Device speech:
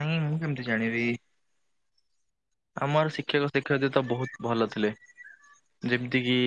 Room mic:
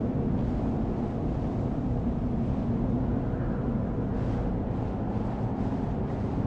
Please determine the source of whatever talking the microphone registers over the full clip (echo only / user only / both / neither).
neither